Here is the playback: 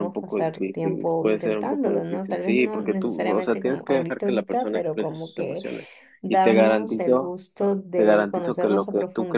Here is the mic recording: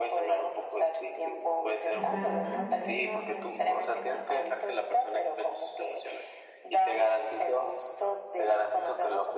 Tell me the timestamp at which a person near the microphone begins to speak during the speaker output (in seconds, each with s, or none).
1.9 s